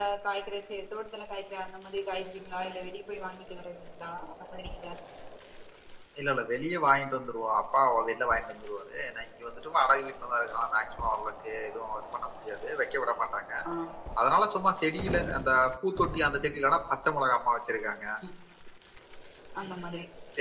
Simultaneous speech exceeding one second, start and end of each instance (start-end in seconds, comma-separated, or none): none